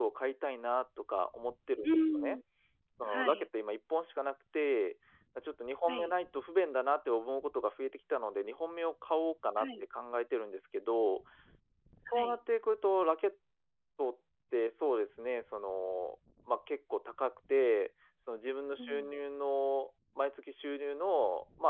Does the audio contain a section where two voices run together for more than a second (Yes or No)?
No